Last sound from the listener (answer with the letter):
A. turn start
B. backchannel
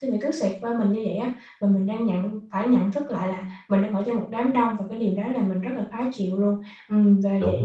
B